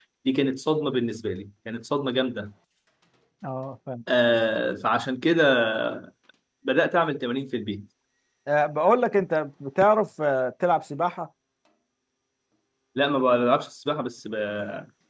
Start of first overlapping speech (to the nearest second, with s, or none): none